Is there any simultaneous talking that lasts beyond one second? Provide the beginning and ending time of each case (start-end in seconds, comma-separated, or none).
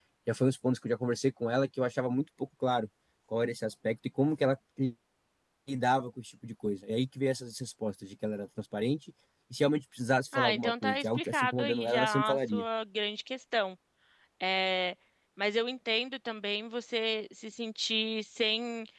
10.3-12.6